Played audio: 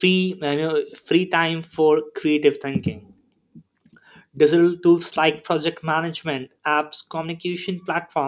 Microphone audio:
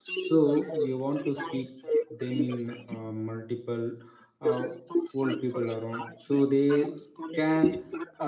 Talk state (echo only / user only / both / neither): both